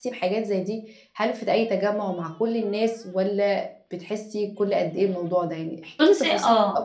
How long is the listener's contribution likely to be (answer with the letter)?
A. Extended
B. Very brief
A